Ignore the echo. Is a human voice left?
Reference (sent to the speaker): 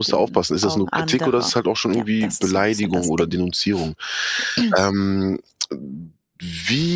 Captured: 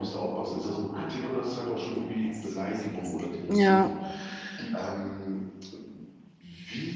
Yes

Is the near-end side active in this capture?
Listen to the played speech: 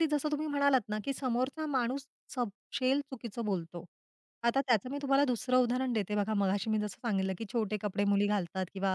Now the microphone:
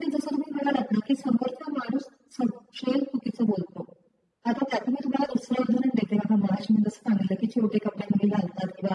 No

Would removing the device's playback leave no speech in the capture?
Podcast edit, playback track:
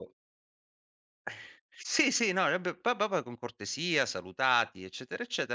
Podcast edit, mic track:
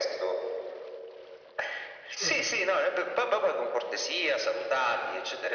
No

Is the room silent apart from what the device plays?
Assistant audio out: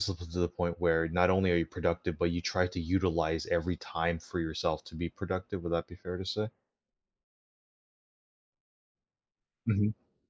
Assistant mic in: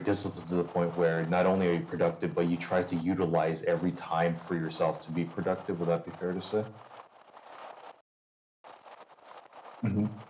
Yes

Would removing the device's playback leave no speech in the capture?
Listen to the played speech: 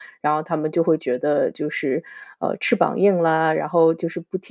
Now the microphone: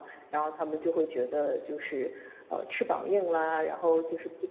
Yes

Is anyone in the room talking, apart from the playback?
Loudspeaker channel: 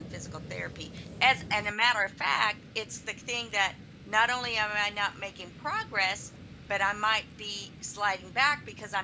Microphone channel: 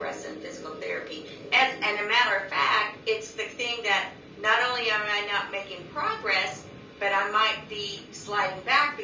No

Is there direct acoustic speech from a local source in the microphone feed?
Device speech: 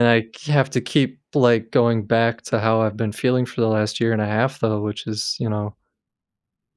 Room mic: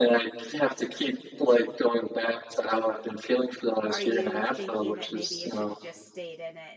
Yes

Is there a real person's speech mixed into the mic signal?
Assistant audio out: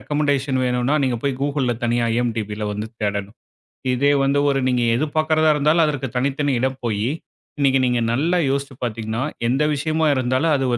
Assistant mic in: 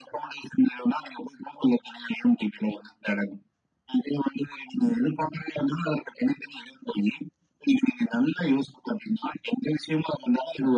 No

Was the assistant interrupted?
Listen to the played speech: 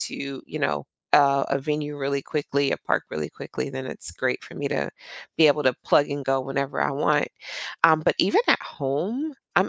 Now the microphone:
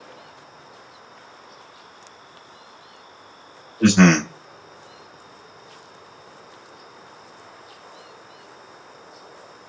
Yes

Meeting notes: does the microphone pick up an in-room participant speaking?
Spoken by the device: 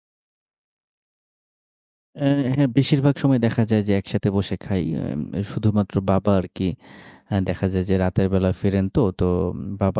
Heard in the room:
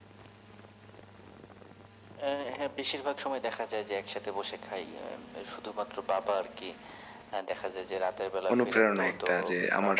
Yes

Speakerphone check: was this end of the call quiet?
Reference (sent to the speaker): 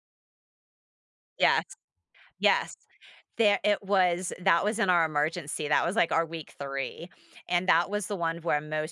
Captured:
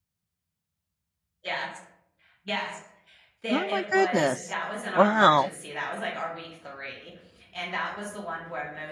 No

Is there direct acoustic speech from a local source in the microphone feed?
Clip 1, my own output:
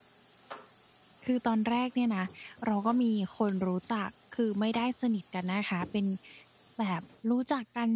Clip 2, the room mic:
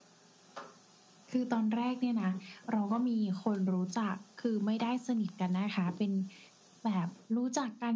No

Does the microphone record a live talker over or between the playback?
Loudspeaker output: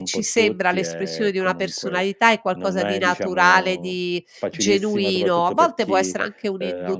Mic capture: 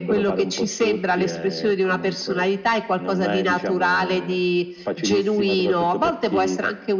No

